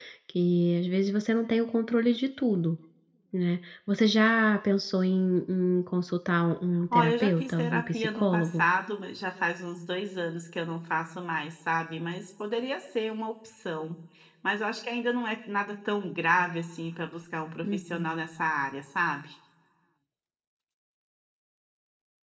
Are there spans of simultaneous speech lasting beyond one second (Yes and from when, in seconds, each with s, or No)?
Yes, from 6.9 s